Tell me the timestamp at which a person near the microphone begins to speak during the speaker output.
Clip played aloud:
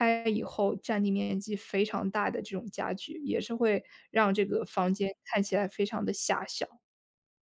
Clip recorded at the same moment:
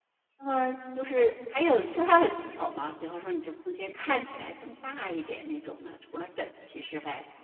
0.4 s

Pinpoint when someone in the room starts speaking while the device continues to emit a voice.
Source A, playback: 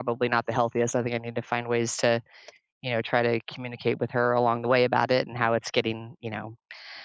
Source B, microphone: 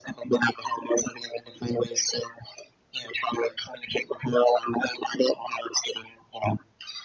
none

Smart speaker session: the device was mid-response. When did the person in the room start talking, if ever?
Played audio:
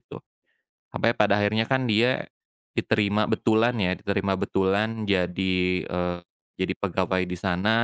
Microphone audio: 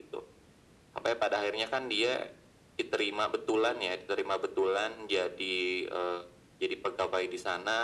none

